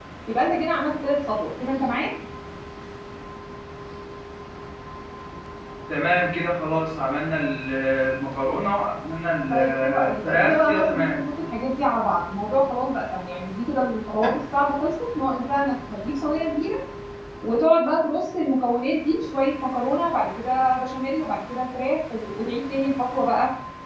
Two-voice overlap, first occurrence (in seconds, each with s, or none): 9.5 s